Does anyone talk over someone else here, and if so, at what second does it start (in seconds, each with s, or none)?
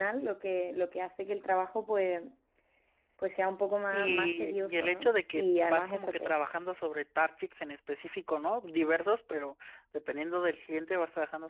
3.9 s